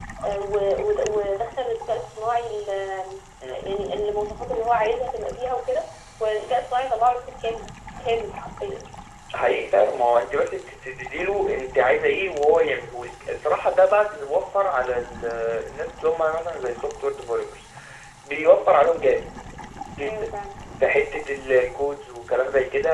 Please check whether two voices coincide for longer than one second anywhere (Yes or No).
No